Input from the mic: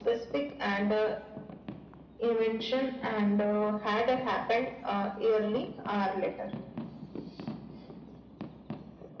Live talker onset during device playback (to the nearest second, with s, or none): none